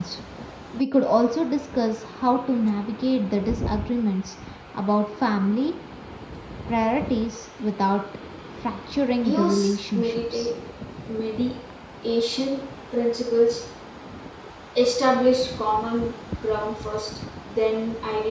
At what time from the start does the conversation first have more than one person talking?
9.2 s

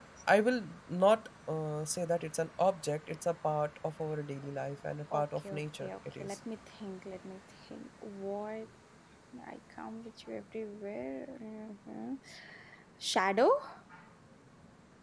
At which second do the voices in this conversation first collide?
5.1 s

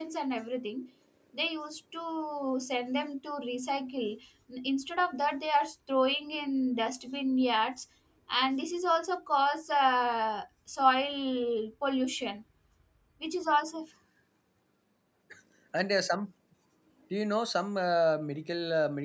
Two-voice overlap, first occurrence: none

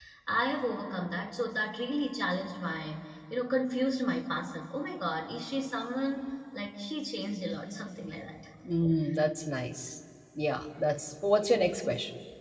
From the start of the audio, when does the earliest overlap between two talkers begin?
none

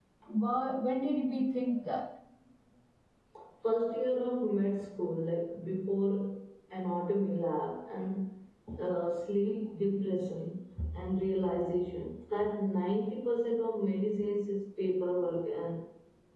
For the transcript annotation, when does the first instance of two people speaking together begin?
none

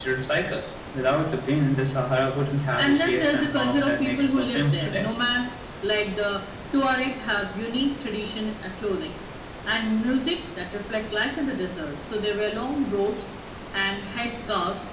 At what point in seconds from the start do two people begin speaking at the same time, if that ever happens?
2.8 s

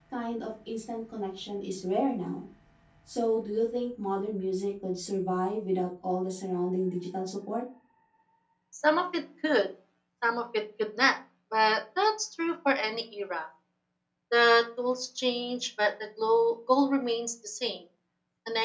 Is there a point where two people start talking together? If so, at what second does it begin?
none

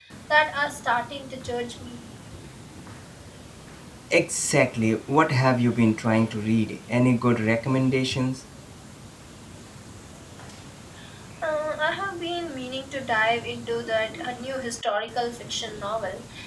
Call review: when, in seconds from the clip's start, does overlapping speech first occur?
none

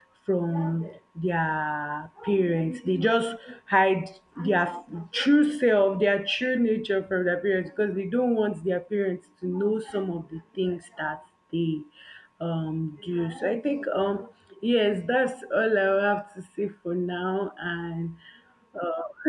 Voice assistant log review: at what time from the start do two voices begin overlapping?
none

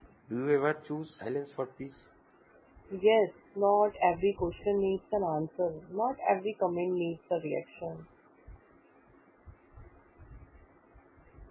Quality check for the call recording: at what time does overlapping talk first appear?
none

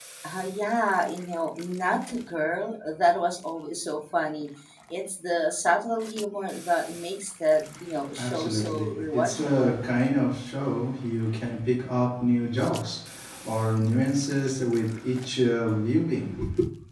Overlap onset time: 8.2 s

